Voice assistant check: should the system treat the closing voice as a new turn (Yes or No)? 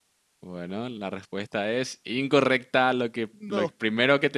No